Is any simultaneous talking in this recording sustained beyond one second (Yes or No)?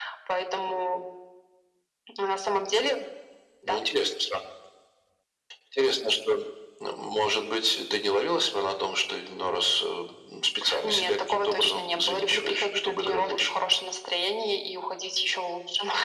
Yes